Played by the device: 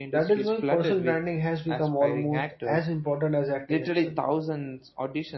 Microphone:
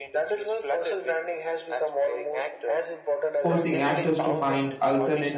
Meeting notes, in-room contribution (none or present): present